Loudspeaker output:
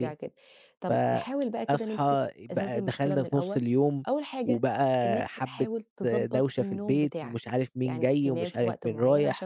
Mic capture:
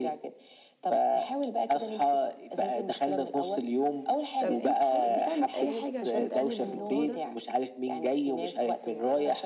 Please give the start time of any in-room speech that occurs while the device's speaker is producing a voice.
4.4 s

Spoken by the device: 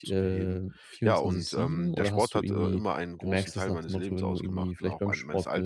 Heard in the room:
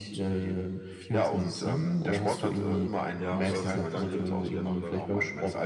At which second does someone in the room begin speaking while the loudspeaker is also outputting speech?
3.2 s

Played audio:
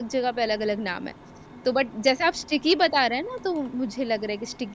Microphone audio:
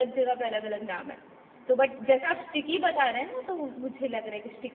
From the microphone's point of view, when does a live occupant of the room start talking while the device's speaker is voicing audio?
none

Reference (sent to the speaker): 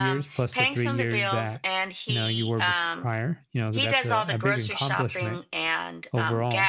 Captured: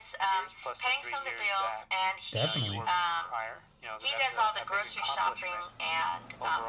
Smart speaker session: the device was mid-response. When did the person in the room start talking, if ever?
2.3 s

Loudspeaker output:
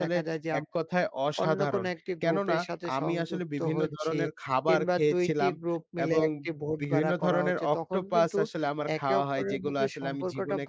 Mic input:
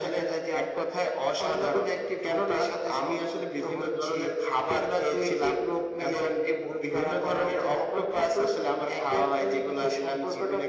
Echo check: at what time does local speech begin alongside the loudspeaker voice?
none

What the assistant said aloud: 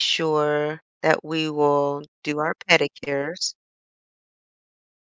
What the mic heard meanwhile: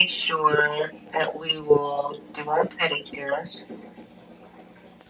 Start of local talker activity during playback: none

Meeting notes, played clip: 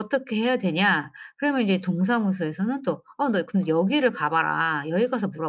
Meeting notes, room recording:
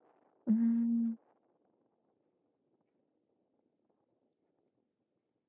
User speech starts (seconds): 0.5 s

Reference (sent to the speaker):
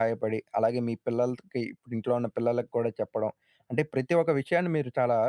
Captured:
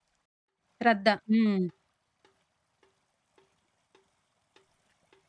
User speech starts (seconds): 0.9 s

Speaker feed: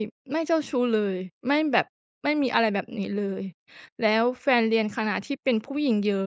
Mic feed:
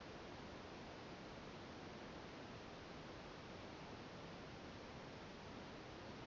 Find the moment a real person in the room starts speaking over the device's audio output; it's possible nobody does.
none

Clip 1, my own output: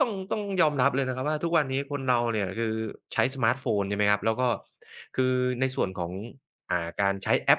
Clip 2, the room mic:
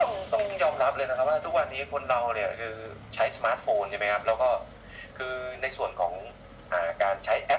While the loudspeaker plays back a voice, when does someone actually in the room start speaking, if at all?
none

